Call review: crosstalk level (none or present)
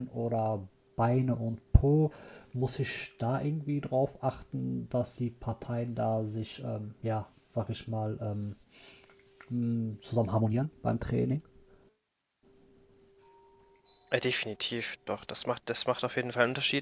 none